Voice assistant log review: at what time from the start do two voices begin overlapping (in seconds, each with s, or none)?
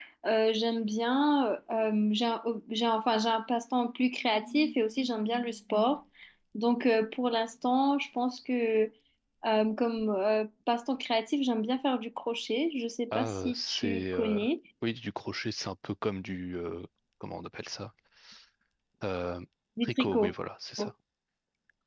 13.1 s